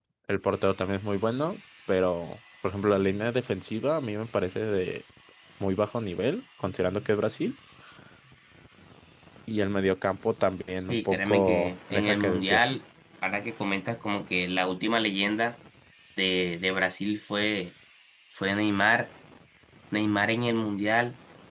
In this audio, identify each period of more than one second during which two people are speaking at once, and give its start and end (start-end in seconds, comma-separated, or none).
10.9-12.6